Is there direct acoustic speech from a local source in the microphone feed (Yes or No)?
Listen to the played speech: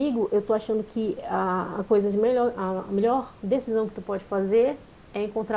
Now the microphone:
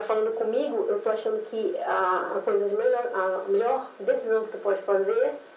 No